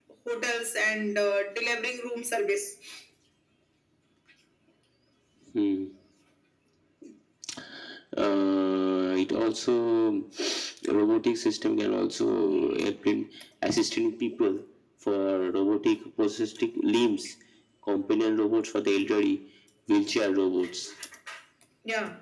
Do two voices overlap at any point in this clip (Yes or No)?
No